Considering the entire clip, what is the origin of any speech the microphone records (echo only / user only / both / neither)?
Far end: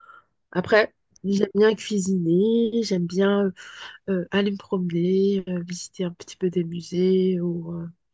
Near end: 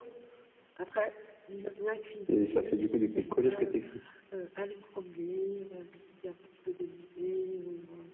both